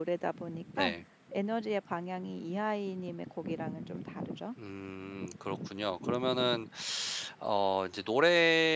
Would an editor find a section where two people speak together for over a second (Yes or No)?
No